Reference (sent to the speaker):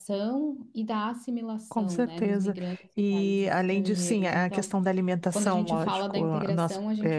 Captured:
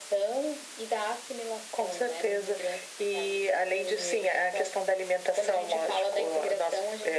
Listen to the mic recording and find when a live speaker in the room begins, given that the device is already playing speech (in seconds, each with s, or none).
none